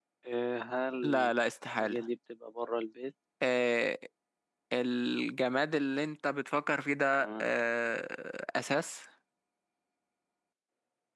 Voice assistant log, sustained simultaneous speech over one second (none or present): none